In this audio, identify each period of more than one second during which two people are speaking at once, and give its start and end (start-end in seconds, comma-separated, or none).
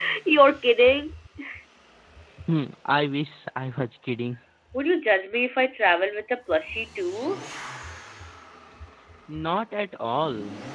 none